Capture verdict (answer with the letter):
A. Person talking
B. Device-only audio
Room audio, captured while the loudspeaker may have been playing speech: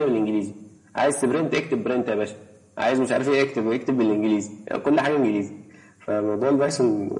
B